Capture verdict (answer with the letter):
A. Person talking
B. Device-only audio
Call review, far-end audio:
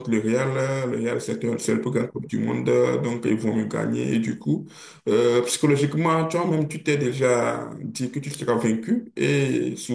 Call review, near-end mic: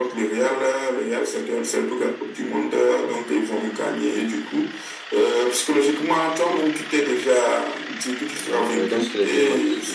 A